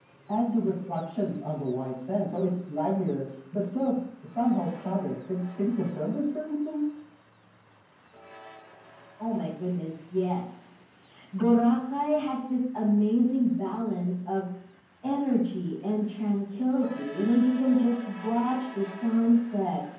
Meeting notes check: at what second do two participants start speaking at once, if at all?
none

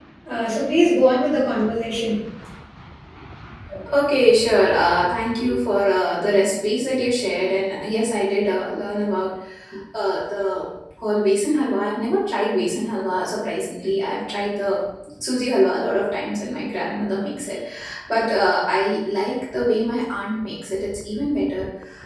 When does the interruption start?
none

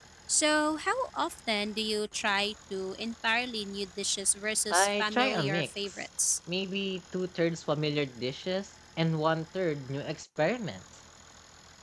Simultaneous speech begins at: 4.7 s

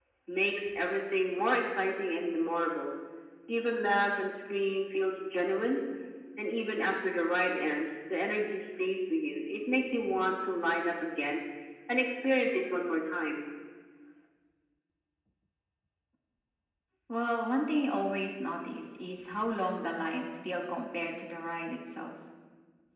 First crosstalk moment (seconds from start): none

